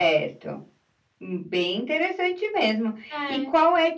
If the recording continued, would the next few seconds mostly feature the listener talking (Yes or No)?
No